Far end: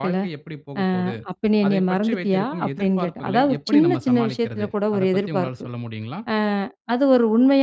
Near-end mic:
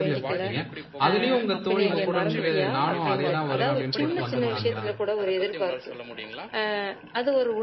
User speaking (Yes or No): Yes